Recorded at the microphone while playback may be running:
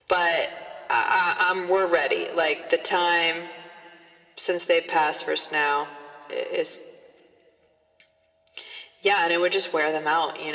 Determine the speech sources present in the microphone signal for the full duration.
echo only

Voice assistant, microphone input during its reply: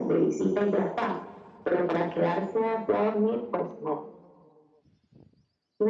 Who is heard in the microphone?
echo only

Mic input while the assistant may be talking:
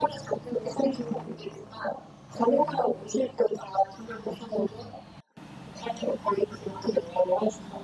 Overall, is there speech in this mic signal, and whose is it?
echo only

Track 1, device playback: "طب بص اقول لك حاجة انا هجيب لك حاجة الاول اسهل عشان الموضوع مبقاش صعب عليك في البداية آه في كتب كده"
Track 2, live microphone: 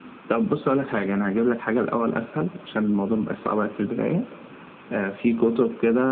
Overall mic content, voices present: echo only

